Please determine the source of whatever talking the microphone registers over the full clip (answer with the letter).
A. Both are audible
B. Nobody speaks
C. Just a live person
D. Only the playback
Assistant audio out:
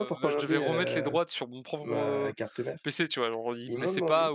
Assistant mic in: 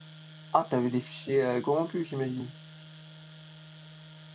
C